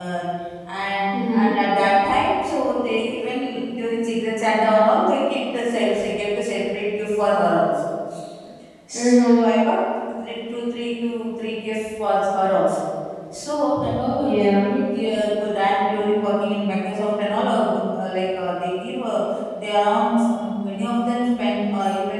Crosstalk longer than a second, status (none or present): none